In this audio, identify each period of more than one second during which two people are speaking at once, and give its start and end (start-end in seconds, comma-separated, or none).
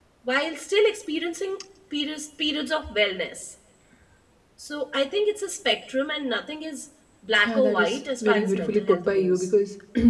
7.4-9.5